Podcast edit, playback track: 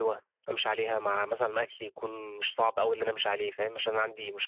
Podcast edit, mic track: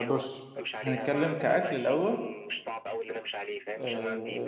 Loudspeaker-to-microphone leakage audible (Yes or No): Yes